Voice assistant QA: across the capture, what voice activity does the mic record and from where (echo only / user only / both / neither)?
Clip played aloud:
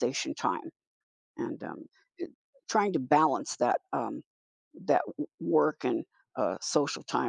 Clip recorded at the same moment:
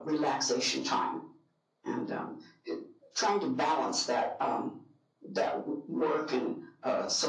echo only